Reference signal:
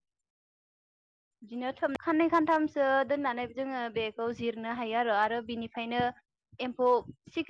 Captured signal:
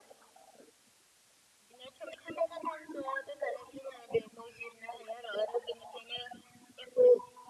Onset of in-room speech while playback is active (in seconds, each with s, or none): none